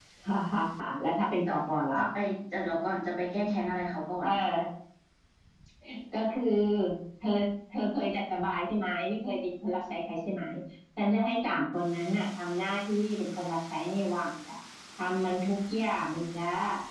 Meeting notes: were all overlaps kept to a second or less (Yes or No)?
Yes